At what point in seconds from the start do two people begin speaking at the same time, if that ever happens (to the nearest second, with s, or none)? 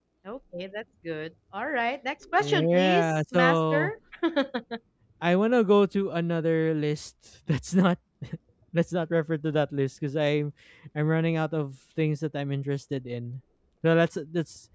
2 s